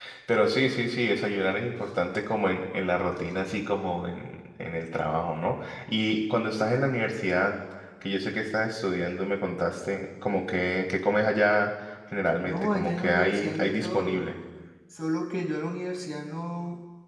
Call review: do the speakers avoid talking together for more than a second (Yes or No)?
No